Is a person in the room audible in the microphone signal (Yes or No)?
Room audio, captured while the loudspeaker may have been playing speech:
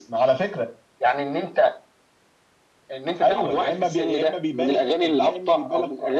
No